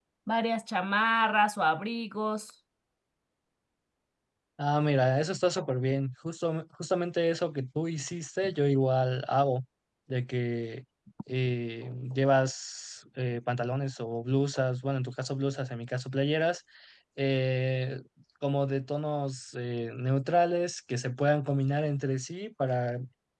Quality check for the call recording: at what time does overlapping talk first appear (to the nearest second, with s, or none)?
none